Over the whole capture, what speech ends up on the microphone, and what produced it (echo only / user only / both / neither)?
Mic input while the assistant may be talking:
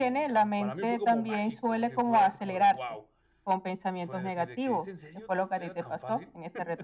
both